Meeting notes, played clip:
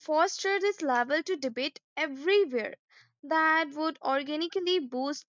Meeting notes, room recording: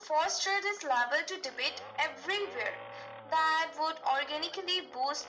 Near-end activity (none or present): none